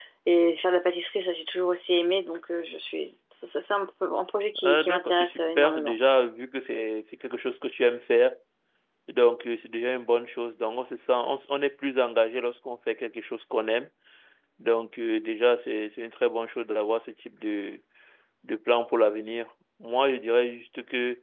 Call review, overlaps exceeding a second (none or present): present